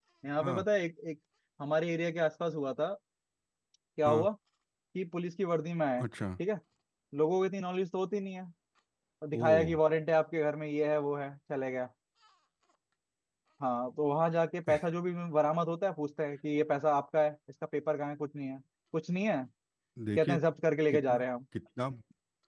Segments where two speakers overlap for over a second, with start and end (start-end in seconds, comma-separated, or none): none